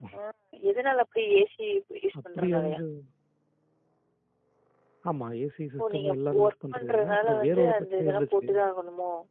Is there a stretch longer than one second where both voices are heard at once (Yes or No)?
Yes